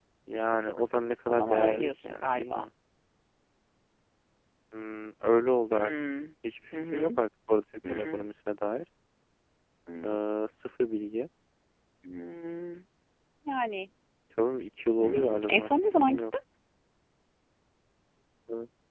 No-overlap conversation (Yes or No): No